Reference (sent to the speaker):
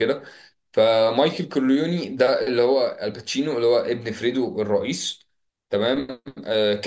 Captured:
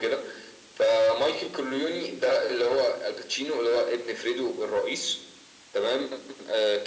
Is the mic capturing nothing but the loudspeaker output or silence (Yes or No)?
Yes